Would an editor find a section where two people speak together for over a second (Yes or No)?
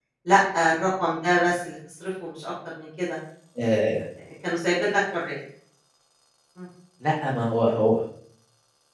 No